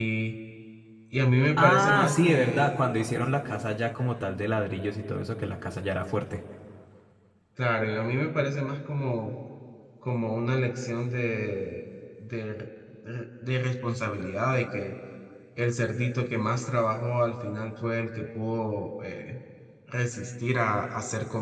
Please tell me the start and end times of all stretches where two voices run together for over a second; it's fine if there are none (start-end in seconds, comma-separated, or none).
1.6-2.8